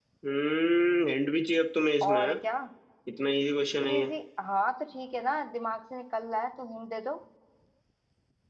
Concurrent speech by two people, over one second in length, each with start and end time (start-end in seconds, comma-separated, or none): none